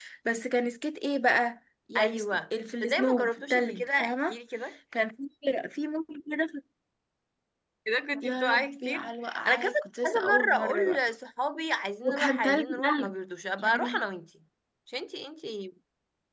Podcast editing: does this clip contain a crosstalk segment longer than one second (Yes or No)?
Yes